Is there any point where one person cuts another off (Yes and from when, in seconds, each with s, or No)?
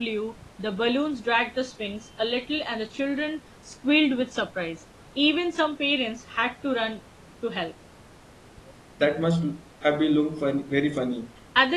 No